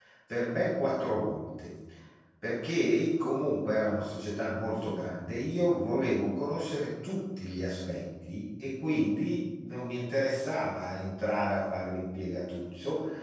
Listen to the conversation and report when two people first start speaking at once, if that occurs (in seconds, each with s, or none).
none